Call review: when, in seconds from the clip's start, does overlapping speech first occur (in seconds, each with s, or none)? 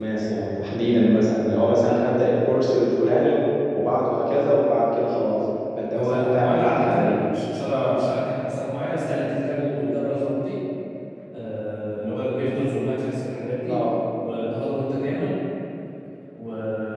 5.9 s